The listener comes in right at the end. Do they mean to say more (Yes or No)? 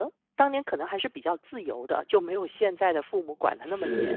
Yes